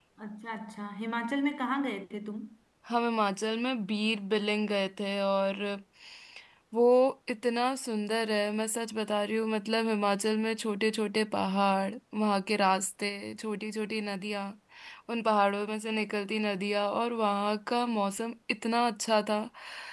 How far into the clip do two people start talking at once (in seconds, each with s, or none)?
none